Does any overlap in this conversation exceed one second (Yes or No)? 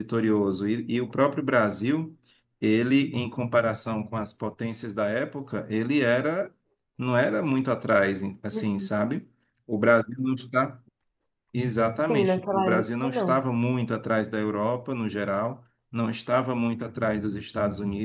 Yes